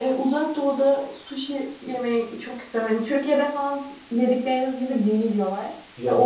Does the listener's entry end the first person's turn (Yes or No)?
No